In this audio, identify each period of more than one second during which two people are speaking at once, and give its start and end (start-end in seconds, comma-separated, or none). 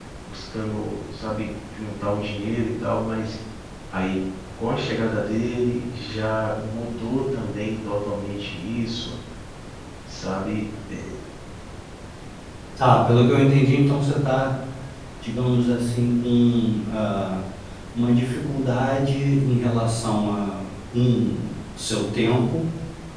none